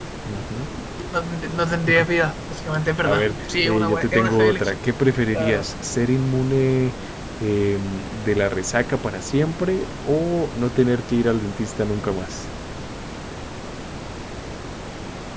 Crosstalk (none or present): present